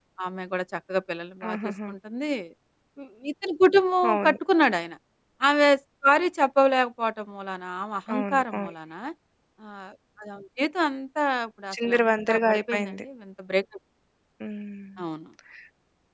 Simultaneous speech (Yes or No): Yes